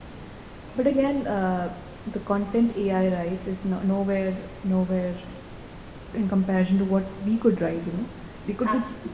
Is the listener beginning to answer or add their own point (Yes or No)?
No